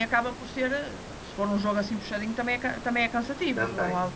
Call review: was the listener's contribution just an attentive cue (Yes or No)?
No